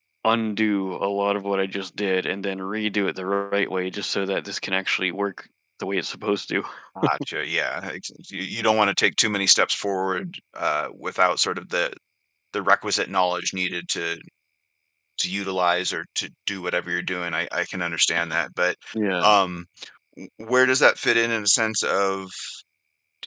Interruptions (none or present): none